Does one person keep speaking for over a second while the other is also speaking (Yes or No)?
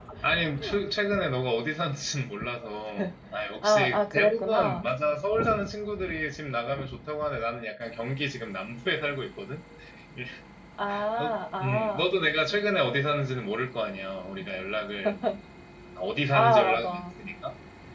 Yes